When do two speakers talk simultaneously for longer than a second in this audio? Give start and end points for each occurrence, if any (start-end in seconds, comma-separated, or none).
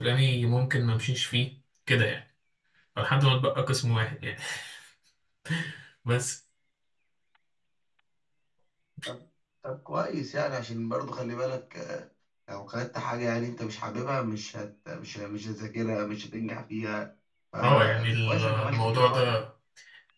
17.6-19.4